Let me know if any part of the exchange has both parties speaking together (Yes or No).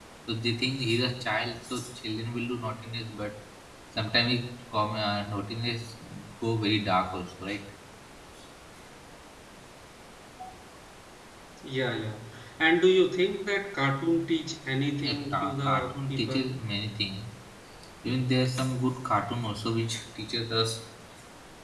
Yes